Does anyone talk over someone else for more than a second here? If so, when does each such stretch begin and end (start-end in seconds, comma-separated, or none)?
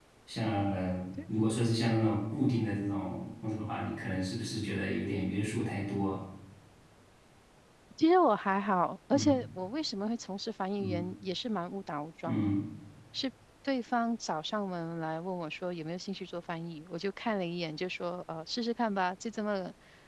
none